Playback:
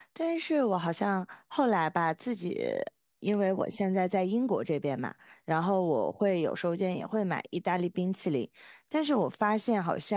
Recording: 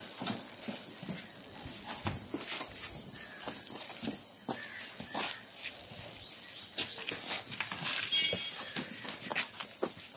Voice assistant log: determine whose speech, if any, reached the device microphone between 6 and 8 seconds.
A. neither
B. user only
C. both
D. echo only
A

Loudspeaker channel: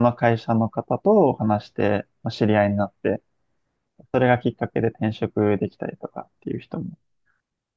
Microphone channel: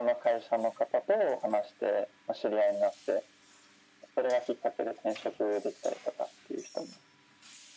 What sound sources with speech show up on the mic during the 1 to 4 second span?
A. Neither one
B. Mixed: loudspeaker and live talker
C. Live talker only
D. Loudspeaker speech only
D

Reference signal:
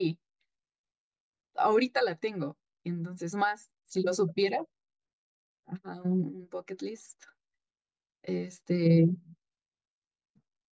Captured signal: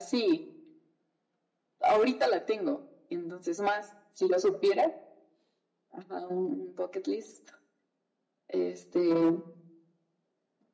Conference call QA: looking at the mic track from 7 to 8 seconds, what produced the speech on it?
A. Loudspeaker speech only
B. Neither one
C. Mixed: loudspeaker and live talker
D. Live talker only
A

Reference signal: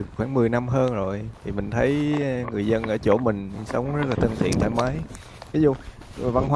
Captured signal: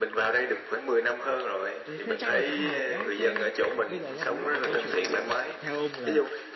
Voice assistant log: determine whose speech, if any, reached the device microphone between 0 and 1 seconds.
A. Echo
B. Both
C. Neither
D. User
A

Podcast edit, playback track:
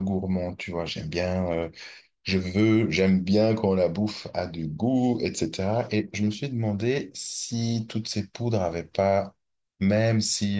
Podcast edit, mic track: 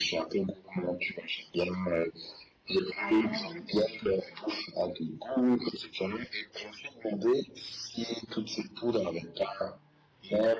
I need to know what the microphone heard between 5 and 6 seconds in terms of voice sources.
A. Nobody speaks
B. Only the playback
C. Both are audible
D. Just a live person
B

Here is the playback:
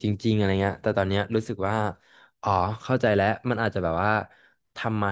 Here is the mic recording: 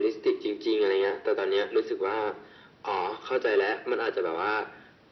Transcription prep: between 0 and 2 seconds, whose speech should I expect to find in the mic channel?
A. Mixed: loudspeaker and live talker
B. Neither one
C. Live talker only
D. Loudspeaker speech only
D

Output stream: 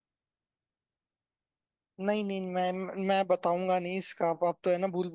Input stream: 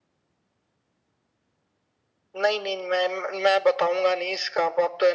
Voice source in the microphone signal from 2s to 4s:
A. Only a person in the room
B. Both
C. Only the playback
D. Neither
C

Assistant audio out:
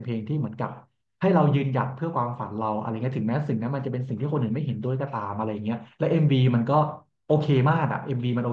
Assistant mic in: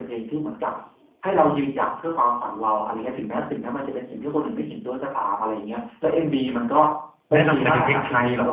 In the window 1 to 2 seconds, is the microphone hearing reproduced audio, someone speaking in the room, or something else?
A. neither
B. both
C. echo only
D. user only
C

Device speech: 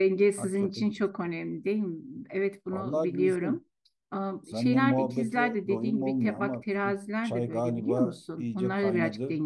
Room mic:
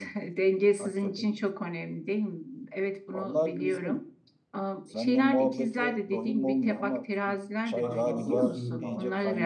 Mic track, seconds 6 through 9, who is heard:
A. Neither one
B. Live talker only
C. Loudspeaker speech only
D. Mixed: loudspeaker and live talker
D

